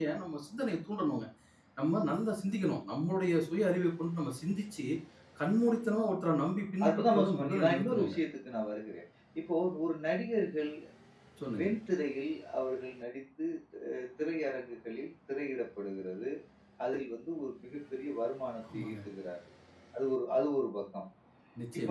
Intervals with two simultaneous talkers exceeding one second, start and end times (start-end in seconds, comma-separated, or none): 6.8-8.1